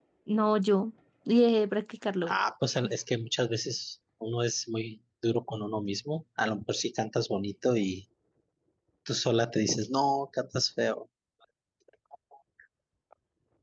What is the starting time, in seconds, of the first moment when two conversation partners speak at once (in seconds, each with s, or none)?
none